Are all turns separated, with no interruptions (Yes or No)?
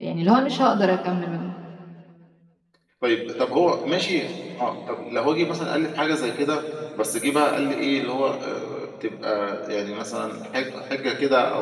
Yes